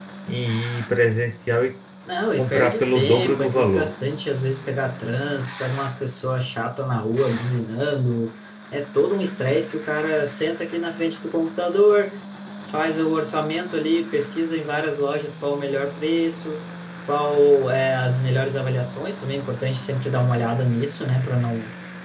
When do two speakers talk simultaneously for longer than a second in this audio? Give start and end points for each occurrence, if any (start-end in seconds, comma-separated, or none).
2.4-3.9